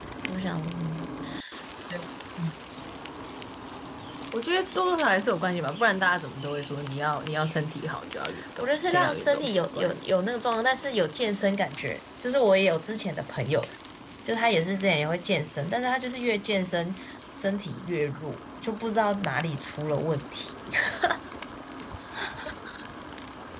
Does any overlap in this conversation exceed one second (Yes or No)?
Yes